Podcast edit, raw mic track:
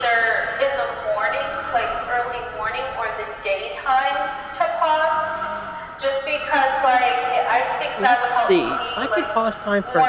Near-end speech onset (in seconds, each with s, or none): 8.0 s